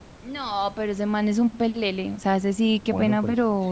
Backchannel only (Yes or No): No